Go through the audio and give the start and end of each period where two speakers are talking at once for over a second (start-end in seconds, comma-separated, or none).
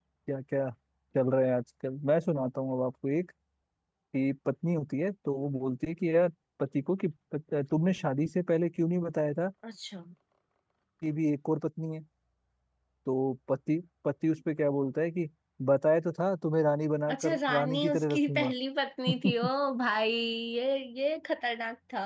17.1-18.5